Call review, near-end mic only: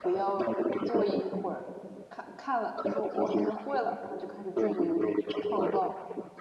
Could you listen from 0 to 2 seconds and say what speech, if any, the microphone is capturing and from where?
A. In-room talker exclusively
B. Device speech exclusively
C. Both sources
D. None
C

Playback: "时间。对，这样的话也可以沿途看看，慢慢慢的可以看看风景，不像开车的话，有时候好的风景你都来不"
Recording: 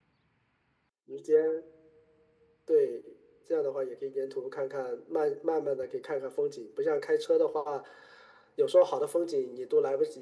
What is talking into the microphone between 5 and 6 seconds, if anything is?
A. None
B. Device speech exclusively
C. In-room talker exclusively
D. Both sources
B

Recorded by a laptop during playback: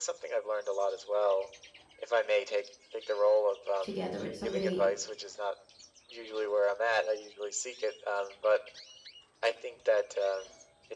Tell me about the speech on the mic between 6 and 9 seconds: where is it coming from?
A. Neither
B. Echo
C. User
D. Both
B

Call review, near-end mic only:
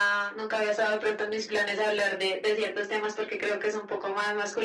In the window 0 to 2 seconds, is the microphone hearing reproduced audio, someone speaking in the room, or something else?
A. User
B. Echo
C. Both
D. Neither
B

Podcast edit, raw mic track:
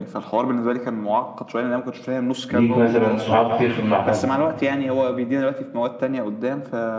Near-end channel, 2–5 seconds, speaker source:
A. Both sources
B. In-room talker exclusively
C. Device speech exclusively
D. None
A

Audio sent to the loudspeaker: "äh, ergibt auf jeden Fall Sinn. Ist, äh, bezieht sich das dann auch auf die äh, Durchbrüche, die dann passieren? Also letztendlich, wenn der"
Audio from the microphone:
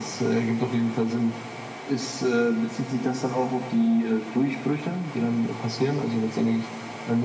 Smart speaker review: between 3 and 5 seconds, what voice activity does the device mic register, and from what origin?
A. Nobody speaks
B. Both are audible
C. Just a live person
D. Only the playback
D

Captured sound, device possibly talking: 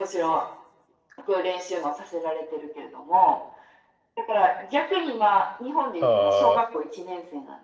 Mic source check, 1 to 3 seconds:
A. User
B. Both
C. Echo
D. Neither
C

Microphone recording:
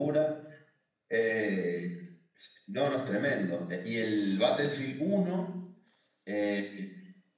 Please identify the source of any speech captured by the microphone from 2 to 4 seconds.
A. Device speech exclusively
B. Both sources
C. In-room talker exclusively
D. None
A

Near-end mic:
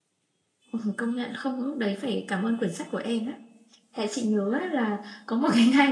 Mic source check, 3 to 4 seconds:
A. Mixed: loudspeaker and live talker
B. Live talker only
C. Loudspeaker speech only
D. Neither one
B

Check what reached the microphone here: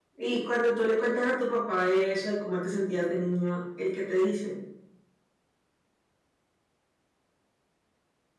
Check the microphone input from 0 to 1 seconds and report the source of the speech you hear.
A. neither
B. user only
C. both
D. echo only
B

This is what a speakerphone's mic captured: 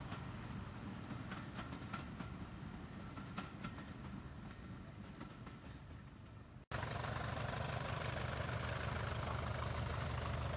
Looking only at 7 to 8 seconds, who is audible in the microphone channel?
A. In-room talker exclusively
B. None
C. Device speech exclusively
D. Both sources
B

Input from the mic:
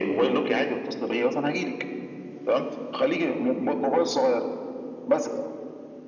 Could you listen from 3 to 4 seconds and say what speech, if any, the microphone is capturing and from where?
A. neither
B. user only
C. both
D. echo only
D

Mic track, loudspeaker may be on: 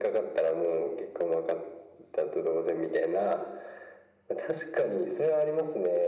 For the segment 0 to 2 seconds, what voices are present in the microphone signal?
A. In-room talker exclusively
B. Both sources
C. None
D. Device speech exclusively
D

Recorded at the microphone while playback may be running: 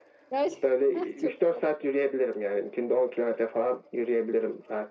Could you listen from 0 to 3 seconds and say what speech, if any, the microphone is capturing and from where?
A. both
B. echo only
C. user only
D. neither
A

